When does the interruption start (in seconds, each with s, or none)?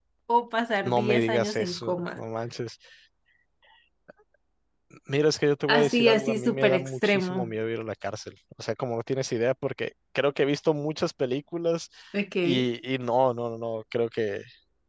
0.8 s